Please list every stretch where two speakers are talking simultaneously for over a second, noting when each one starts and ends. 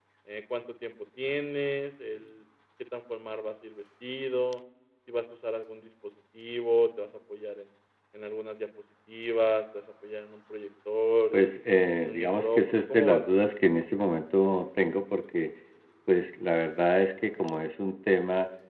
12.0-13.2

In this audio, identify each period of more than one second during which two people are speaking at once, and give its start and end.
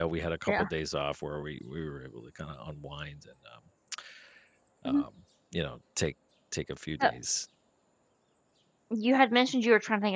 none

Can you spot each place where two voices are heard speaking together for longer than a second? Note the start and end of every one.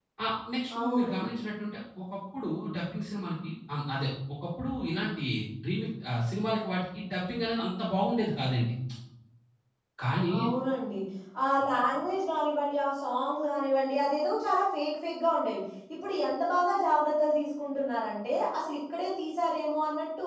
none

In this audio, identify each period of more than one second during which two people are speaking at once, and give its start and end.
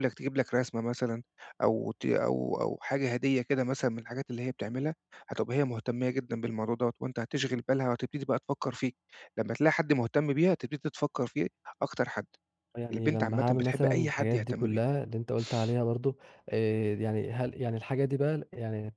12.9-14.8

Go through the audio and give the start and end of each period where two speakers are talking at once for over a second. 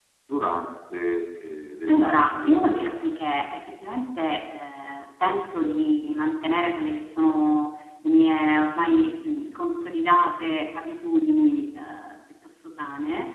1.9-3.2

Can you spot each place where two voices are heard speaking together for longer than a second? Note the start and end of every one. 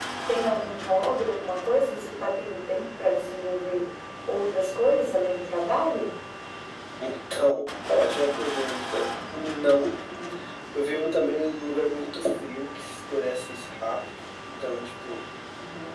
none

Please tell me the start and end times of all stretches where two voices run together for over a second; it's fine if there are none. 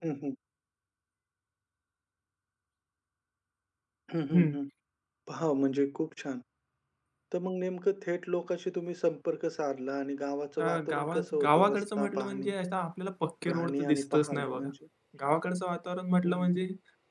10.6-12.5, 13.5-14.7

